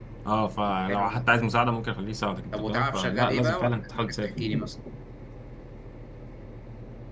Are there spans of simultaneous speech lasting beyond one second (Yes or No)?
Yes